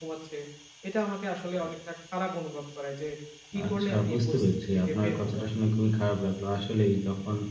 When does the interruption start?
3.7 s

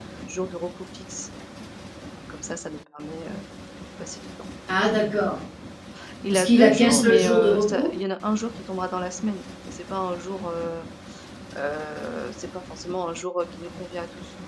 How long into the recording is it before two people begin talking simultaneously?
6.3 s

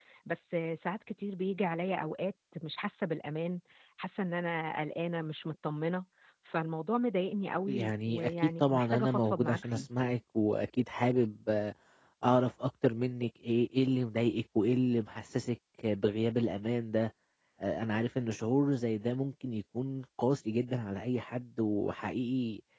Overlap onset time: 7.7 s

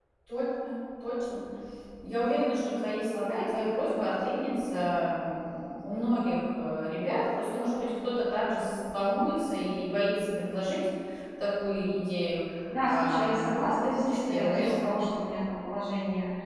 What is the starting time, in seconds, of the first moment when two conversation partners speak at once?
12.9 s

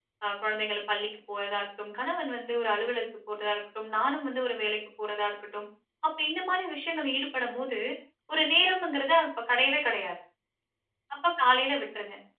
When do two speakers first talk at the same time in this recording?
none

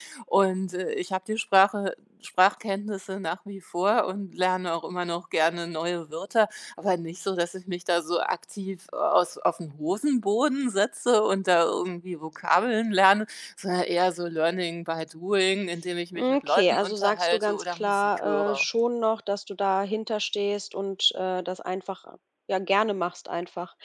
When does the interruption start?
16.2 s

